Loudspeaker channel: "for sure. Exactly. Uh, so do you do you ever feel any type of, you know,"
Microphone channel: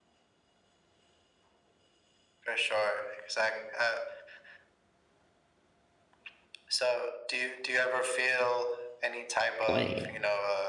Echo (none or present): present